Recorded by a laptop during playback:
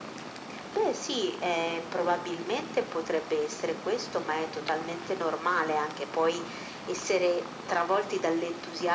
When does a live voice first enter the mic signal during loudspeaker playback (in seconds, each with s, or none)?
none